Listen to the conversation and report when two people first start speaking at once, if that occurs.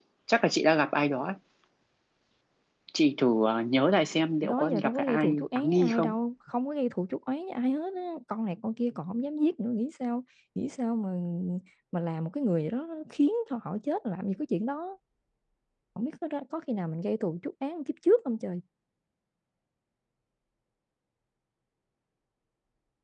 4.4 s

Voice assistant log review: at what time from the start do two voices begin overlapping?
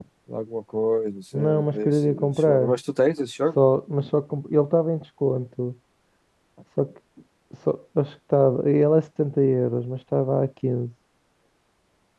1.3 s

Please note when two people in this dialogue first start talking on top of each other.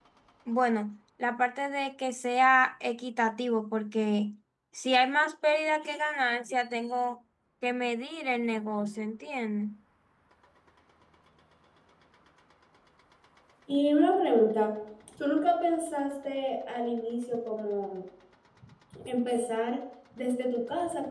none

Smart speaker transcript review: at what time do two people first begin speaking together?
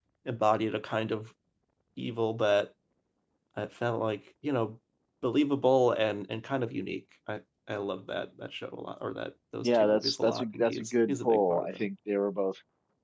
9.6 s

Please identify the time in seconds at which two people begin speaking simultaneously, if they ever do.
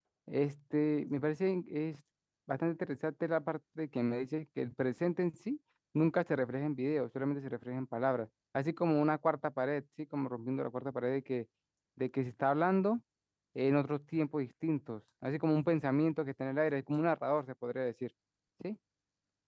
none

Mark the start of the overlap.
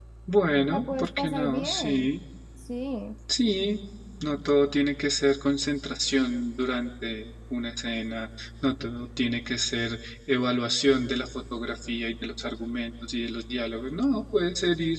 0.7 s

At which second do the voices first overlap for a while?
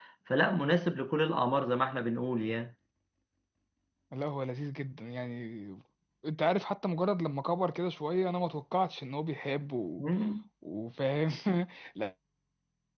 none

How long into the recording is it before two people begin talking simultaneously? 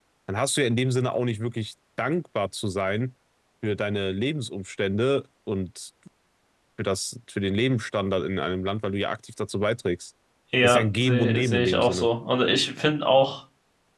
10.6 s

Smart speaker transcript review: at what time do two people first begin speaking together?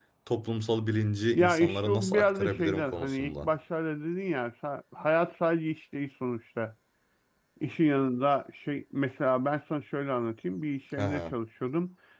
1.4 s

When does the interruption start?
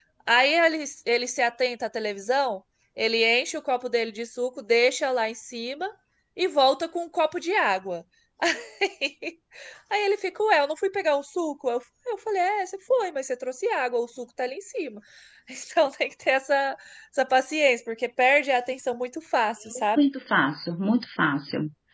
none

